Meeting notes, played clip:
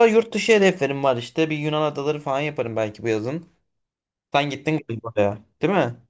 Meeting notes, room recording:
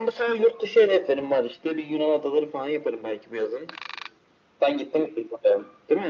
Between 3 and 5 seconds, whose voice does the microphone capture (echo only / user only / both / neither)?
echo only